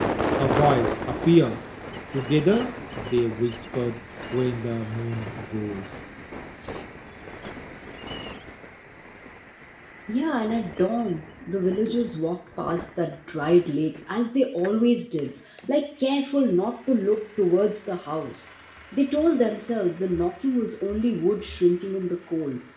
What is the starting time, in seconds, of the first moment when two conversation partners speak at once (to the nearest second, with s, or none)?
none